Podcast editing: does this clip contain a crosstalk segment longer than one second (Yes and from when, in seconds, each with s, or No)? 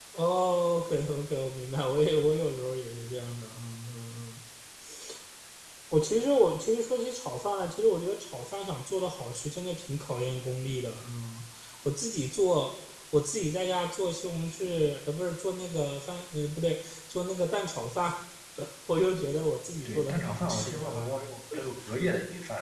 Yes, from 19.8 s